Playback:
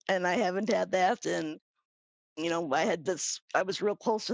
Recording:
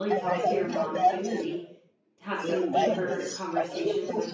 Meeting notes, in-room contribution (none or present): present